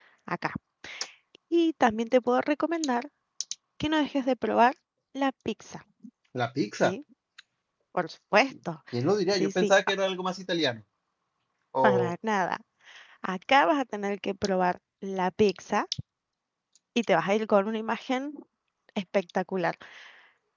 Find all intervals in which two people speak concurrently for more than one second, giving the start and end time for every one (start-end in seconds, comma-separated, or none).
none